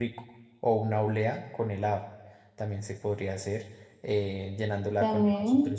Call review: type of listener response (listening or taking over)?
listening